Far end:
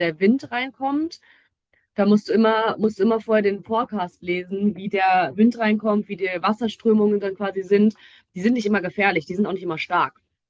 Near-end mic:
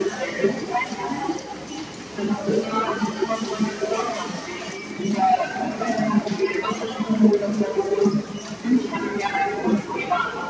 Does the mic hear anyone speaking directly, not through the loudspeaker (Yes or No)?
No